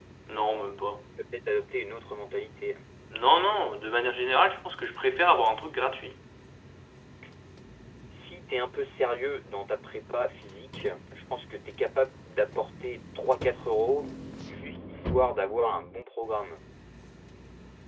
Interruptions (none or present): none